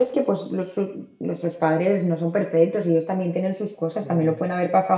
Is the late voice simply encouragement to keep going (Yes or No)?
Yes